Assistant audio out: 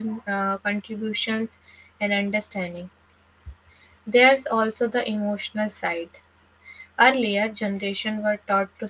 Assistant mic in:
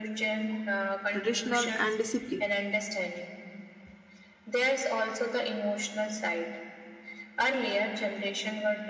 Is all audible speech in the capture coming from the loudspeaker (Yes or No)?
No